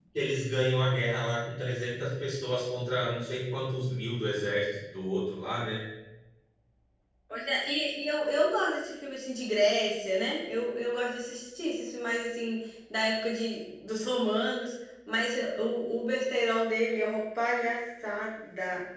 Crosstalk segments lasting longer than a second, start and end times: none

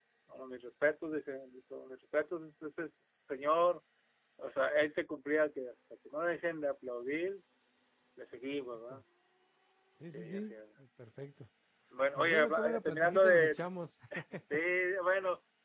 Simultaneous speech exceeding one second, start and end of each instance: 12.2-13.6

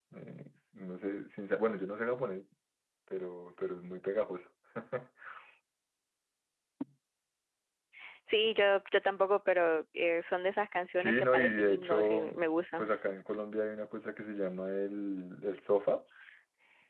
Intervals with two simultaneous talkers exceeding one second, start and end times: 11.0-12.2

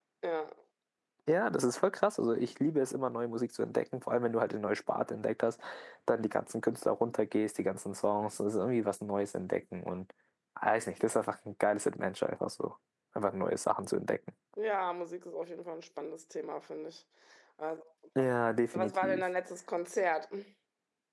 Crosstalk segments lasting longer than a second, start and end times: none

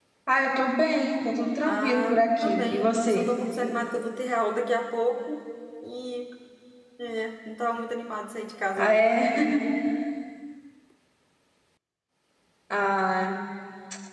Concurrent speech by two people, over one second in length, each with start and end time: 1.7-3.2

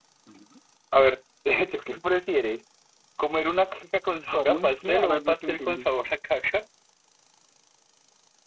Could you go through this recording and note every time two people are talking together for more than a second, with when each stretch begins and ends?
4.6-5.8

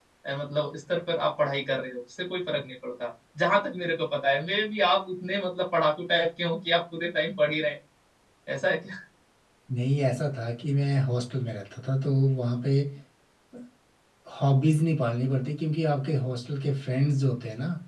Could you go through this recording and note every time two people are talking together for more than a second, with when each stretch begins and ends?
none

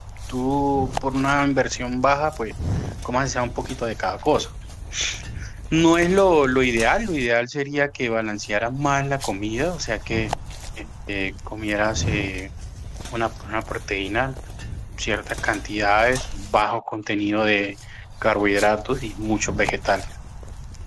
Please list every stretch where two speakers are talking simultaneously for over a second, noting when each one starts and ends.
none

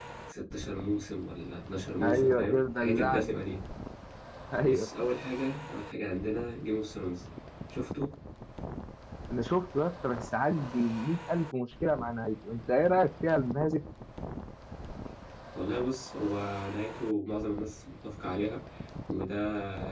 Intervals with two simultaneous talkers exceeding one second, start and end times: 2.0-3.4

